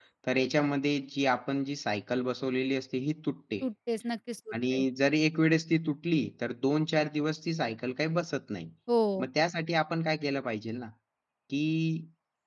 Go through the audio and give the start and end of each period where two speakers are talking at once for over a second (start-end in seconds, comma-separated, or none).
none